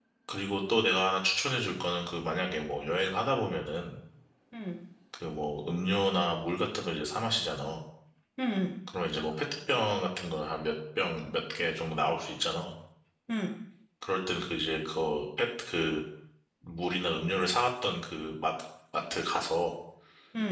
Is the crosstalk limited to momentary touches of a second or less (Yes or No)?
Yes